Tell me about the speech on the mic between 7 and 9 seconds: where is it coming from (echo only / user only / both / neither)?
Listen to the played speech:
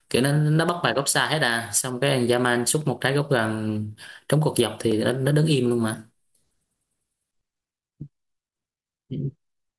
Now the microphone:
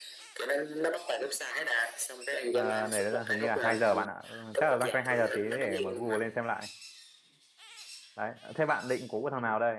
user only